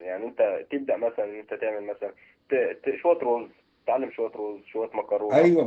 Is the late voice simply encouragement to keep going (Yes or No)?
No